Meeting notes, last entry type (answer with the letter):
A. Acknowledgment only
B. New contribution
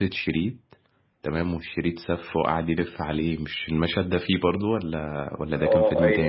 B